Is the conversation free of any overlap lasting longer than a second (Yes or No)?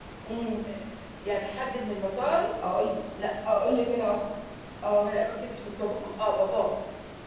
Yes